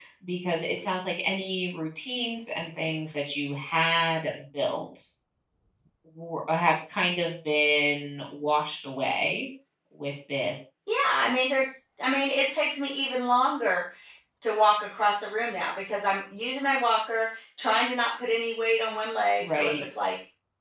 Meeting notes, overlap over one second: none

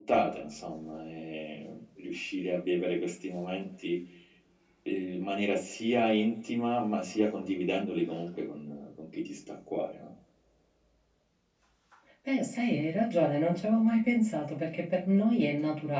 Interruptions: none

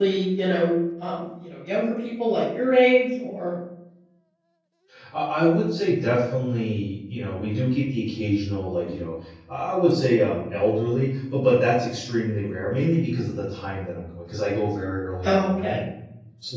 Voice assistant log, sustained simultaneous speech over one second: none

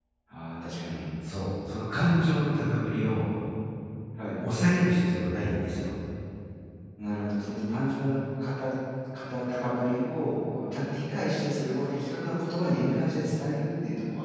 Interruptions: none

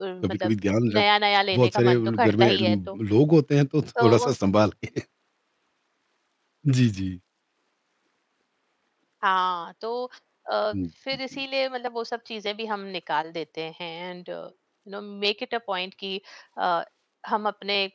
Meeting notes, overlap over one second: present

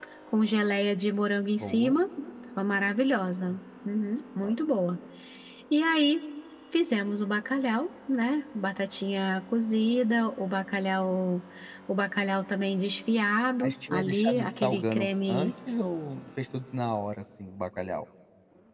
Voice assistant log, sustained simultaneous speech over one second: present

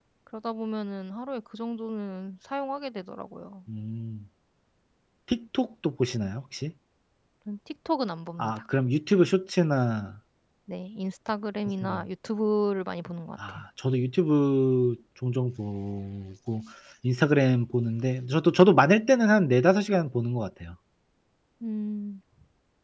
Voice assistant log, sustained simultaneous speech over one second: none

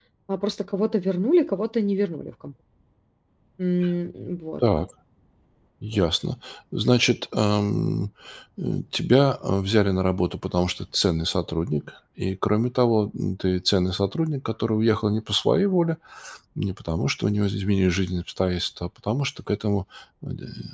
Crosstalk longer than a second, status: none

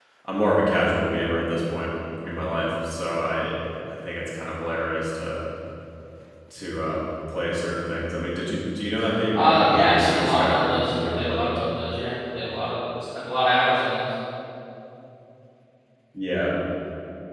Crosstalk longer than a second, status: present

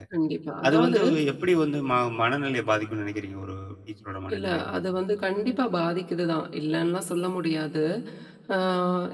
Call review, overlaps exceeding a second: none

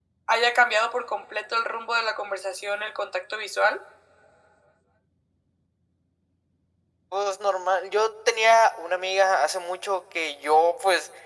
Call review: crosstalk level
none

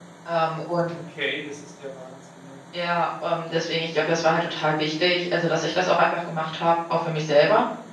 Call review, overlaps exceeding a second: none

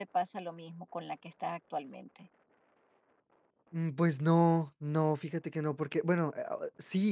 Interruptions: none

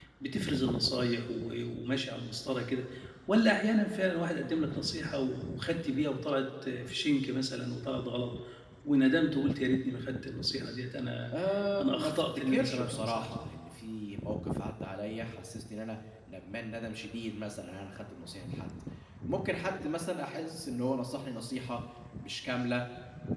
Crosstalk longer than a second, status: present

